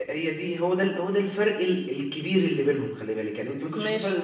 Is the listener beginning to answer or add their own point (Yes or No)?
No